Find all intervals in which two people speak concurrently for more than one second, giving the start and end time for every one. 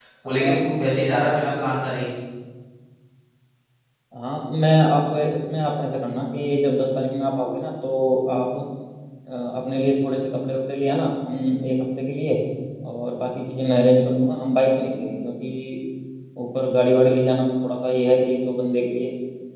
none

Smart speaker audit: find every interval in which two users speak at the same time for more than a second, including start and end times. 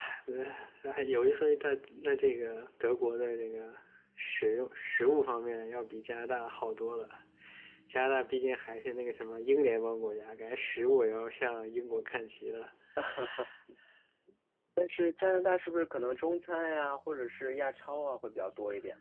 none

